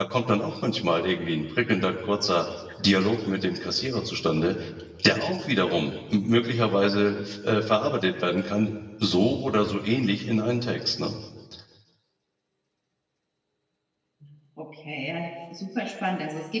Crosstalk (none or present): none